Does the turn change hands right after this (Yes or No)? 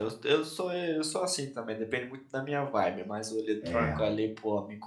No